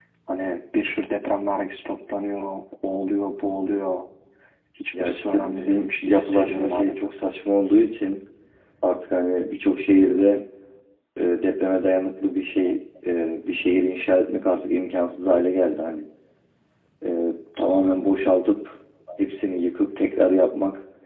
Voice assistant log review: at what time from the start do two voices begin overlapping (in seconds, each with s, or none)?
5.0 s